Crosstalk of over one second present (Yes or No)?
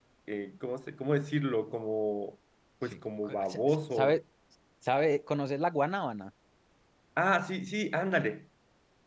Yes